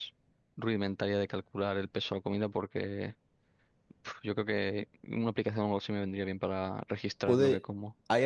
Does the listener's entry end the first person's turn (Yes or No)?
Yes